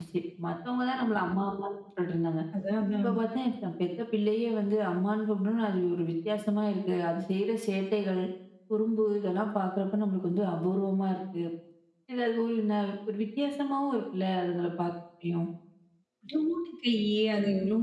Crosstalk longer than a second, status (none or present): none